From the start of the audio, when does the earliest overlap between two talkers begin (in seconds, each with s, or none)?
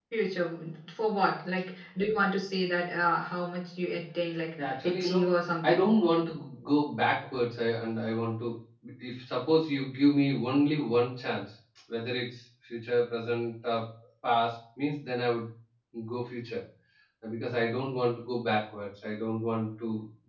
4.6 s